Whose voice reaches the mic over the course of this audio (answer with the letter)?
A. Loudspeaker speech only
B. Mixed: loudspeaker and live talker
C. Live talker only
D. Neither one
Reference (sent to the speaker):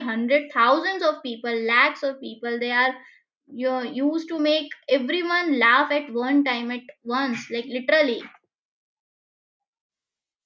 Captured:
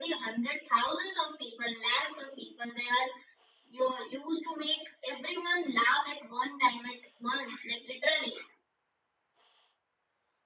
A